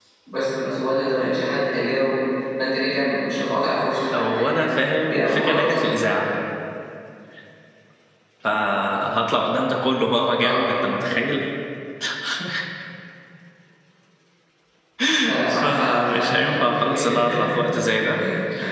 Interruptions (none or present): present